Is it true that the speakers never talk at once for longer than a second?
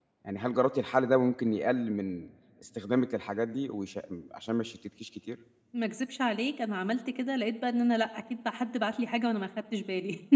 Yes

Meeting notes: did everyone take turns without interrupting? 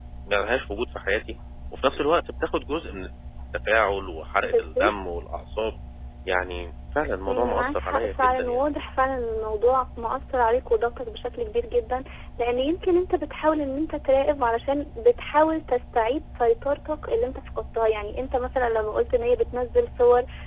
No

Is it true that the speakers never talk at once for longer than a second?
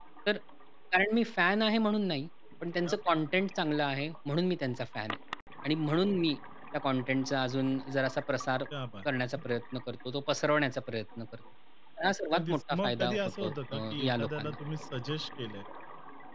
No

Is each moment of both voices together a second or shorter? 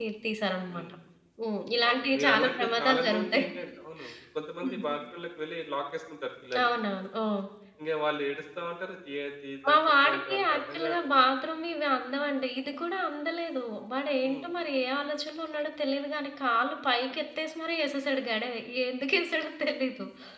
No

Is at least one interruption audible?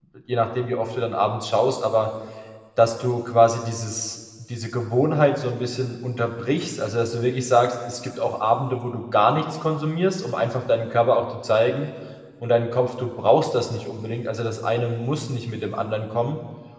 No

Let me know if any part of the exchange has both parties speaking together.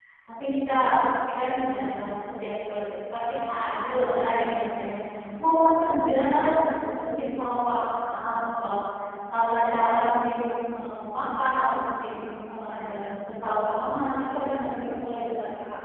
No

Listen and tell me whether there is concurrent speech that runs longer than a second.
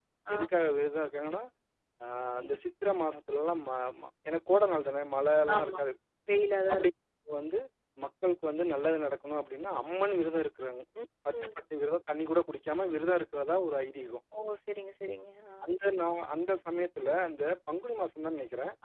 No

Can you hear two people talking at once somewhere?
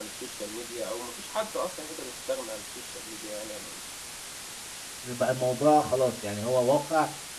No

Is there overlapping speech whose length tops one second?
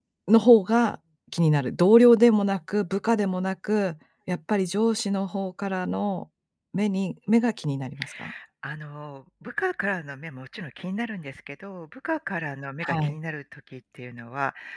No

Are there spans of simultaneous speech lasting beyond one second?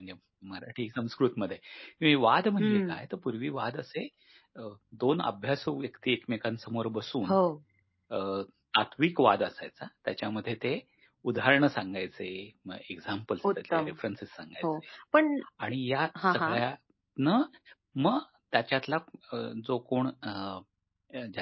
No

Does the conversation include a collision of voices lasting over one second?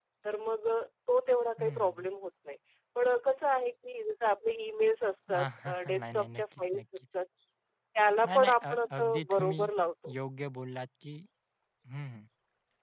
Yes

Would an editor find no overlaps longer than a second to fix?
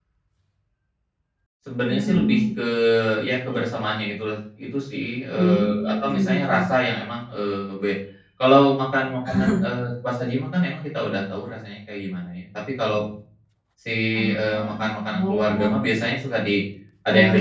No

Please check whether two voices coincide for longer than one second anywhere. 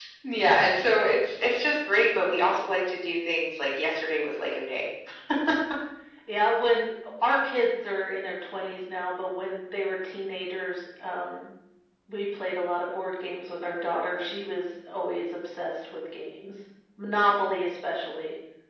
No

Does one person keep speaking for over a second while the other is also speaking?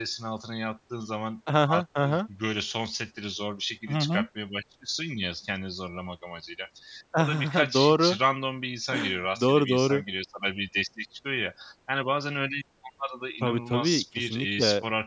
Yes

